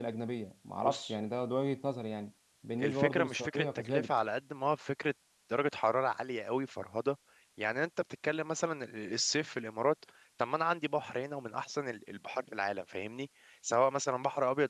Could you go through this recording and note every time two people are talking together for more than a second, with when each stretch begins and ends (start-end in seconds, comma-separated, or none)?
2.8-4.1